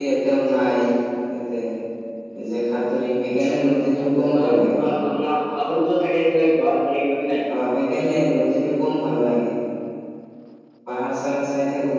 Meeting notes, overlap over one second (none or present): none